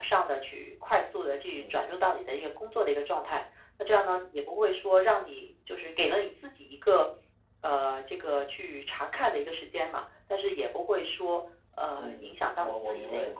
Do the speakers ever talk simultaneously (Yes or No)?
Yes